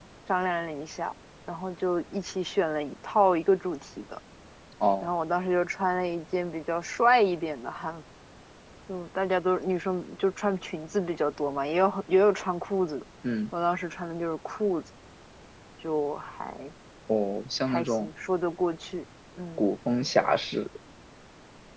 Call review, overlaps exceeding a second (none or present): none